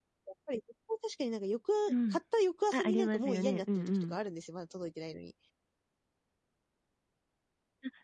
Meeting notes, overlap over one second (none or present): present